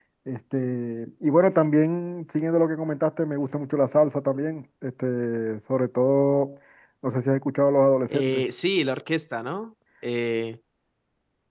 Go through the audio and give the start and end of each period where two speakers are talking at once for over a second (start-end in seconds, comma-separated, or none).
none